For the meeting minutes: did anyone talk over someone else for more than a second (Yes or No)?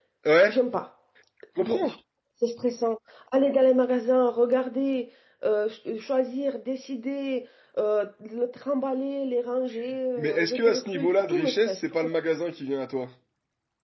Yes